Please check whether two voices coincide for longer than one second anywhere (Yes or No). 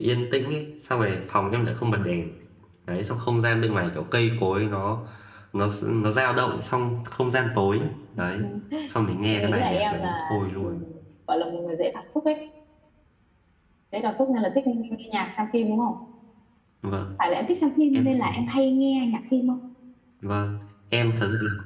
Yes